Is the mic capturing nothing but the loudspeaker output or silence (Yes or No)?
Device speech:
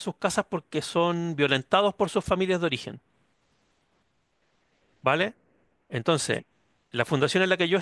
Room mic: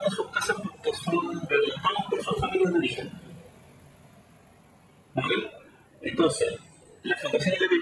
Yes